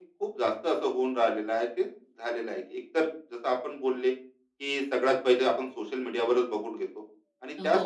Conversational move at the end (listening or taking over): listening